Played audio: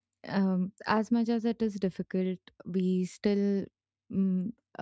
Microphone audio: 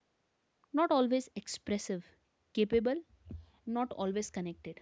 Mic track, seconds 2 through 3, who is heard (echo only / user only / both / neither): user only